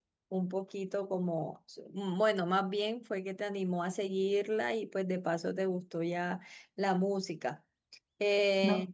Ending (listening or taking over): listening